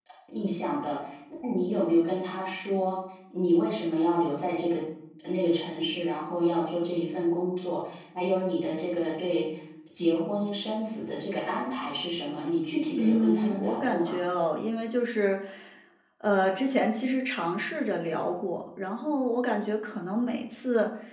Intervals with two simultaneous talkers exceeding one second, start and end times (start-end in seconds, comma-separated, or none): 12.9-14.2